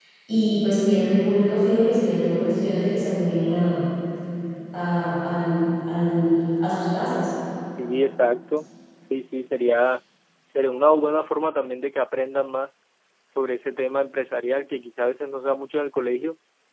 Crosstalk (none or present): none